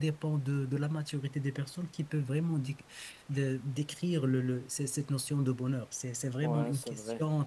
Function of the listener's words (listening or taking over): taking over